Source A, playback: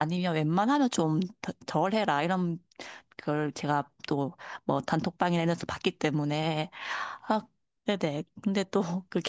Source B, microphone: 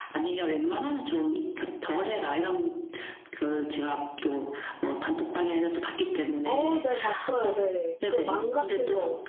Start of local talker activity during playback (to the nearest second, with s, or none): 6 s